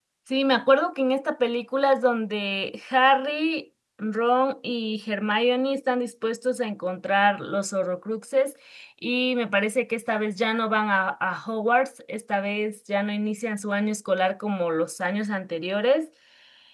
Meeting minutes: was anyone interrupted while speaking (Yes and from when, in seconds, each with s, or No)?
No